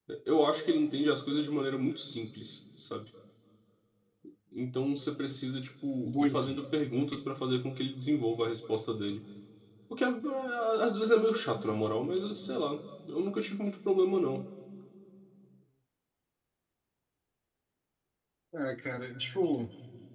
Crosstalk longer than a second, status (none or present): none